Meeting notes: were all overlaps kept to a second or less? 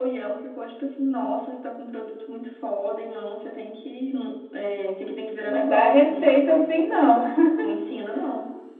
No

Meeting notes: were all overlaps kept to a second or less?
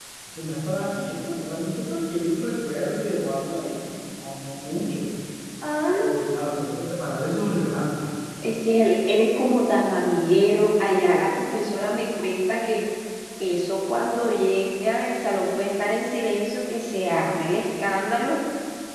Yes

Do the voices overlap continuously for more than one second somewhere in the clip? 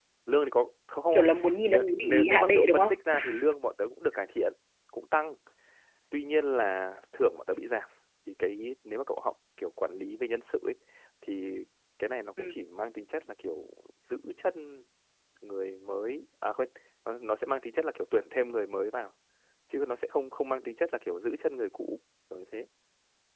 Yes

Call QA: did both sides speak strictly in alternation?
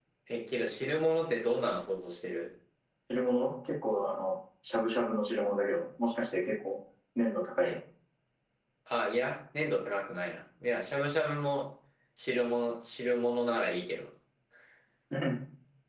Yes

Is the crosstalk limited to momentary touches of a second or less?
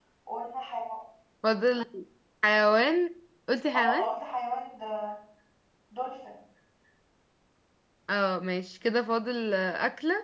Yes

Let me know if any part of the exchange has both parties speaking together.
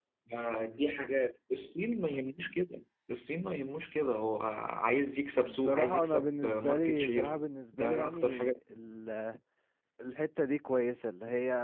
Yes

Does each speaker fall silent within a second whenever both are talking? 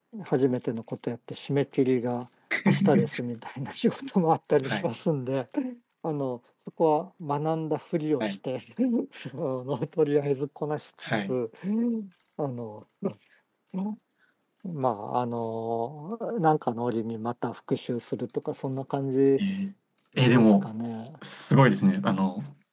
Yes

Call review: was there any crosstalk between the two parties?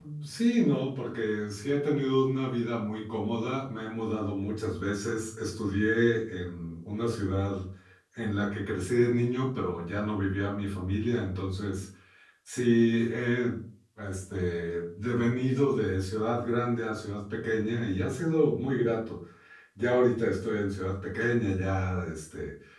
No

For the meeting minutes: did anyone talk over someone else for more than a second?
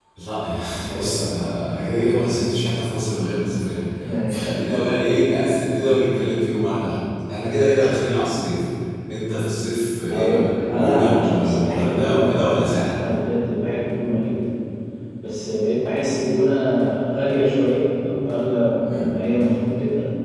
Yes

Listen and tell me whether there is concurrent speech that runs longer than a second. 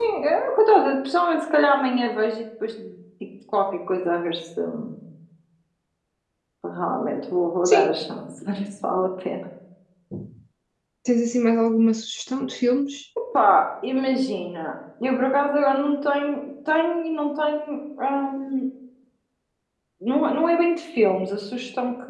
No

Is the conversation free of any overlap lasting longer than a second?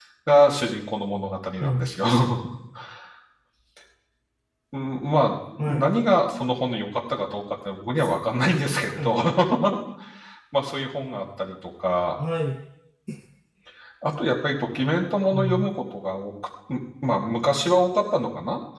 Yes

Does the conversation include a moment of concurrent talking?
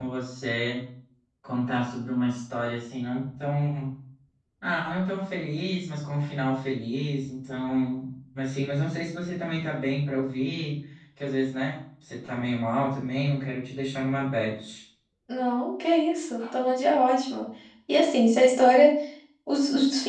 No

